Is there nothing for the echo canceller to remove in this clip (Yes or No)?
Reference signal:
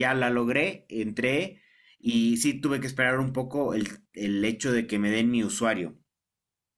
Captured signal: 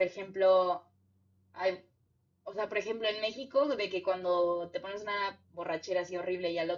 Yes